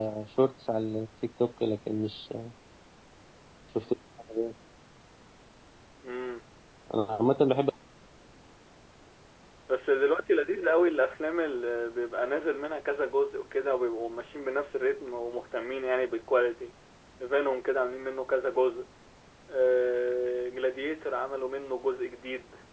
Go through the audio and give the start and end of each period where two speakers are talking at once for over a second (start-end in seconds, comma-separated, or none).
none